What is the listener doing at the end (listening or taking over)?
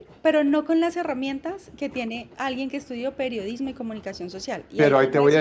taking over